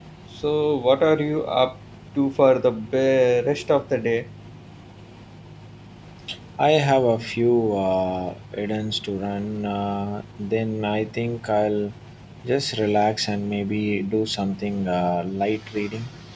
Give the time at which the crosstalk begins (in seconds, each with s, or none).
none